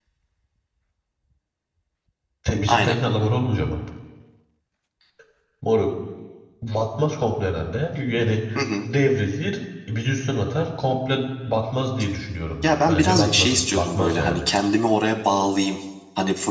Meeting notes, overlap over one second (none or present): present